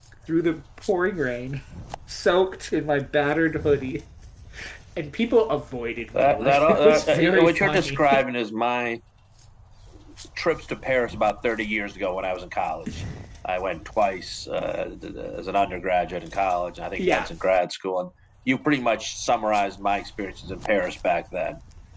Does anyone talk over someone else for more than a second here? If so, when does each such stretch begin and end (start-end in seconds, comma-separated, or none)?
6.1-8.2